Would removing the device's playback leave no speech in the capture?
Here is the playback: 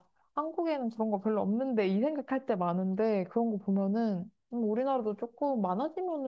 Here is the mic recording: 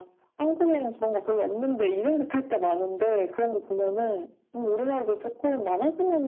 Yes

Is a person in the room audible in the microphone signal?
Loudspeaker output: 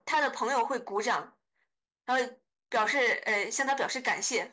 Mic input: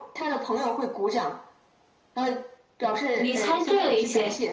Yes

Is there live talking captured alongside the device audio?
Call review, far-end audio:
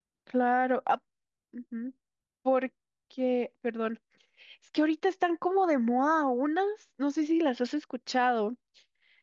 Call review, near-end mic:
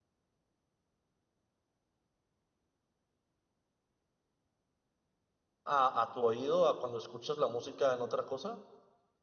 Yes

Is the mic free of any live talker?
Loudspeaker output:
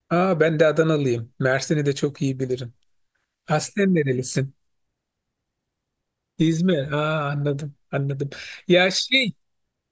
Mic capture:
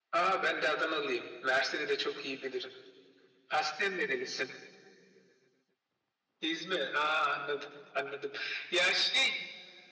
Yes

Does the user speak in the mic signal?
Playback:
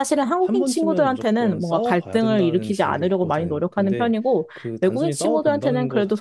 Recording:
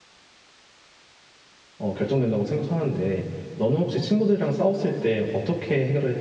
Yes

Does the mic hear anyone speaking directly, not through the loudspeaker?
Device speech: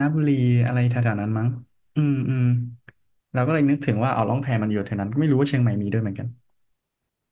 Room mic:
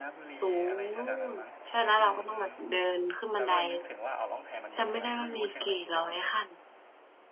Yes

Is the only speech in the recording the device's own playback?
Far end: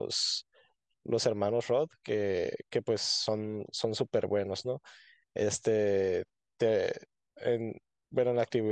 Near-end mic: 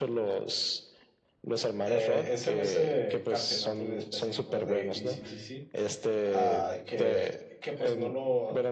No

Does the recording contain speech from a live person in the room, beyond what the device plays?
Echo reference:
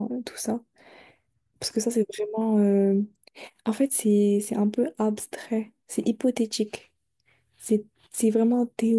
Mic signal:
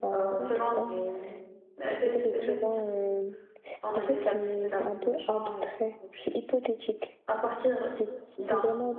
Yes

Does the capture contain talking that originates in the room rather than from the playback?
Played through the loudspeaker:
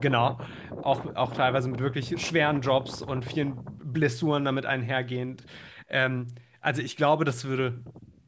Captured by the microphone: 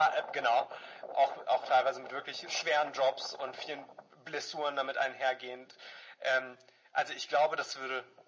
No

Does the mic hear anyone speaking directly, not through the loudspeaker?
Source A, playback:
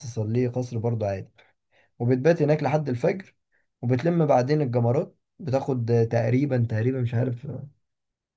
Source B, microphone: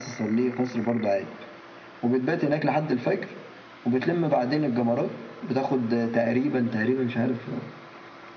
No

